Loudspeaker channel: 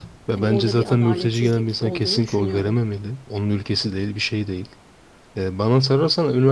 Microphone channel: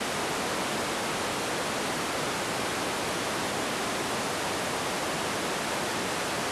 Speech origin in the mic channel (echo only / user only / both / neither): neither